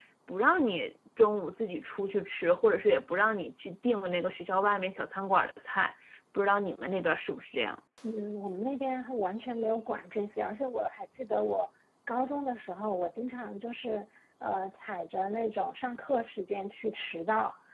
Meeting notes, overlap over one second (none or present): none